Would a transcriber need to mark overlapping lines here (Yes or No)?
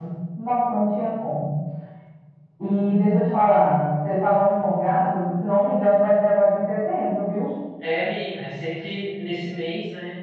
No